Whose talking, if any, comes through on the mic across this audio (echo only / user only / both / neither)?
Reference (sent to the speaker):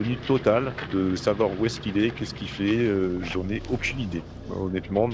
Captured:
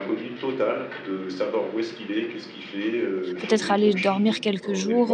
both